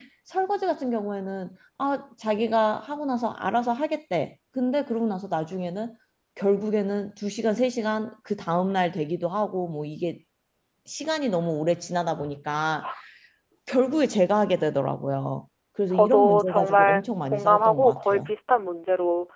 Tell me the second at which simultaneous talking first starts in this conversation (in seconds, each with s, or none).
15.9 s